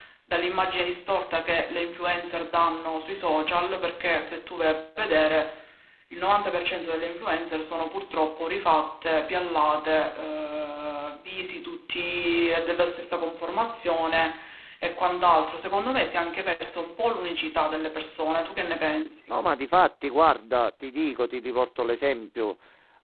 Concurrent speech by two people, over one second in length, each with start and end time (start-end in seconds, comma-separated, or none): none